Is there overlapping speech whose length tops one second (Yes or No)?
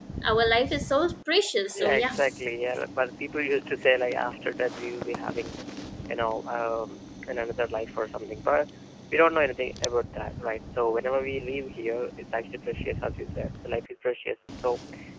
No